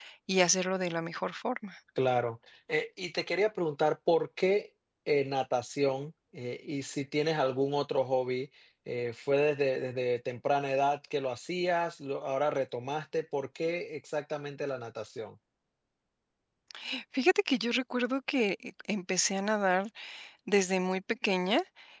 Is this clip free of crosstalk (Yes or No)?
Yes